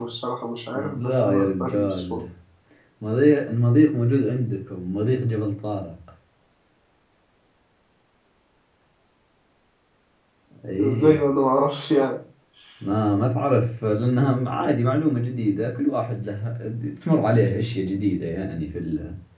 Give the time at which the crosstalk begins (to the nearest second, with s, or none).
1 s